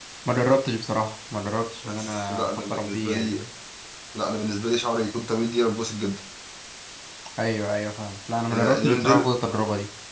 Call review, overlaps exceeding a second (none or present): present